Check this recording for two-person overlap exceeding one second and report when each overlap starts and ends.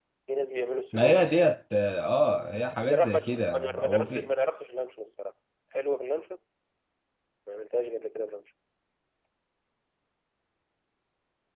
2.9-4.3

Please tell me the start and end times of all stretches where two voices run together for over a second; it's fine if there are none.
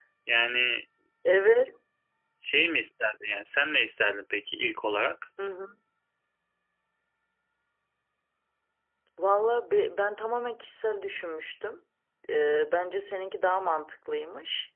none

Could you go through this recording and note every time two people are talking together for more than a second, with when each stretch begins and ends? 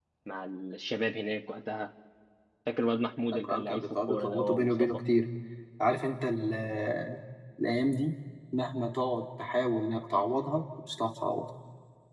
3.3-4.7

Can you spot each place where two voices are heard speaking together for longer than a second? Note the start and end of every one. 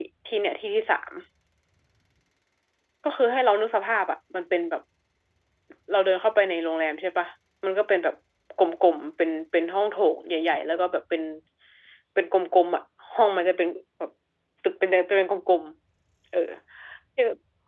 none

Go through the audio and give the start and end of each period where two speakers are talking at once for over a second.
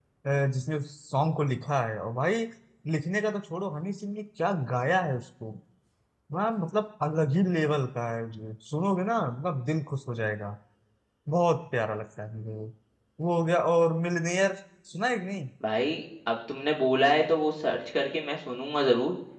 none

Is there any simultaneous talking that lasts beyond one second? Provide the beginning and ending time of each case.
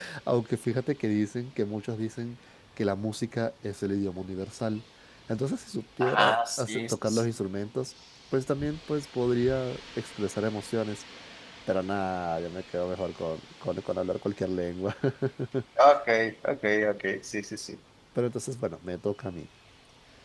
6.0-7.3

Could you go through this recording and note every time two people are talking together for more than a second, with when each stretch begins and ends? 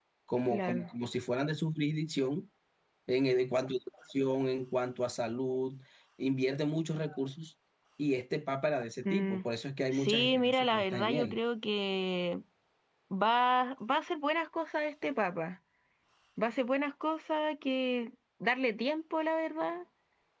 9.9-11.3

